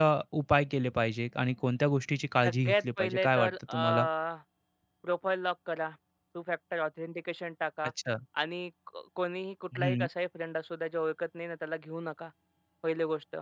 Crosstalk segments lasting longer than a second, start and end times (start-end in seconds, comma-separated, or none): 2.4-3.8